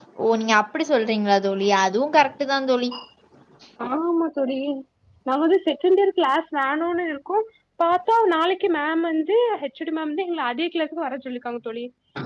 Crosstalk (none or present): none